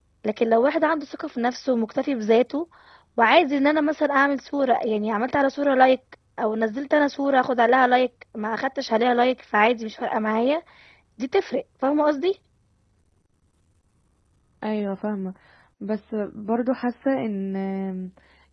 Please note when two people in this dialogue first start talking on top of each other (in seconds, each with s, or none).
none